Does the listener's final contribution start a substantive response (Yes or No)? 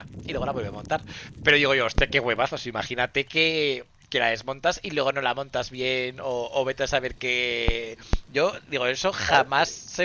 No